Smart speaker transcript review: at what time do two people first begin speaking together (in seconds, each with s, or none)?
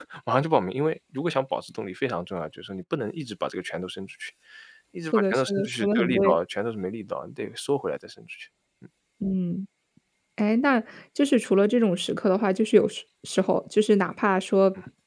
5.1 s